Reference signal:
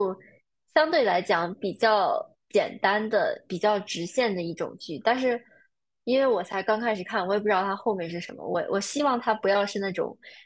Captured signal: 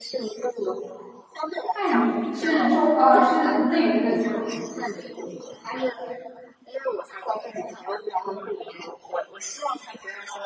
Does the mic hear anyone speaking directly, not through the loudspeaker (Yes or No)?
Yes